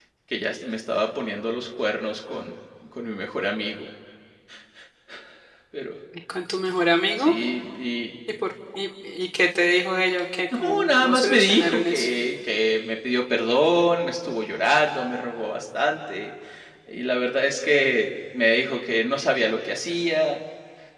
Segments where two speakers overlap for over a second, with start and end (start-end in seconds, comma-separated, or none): 10.5-12.1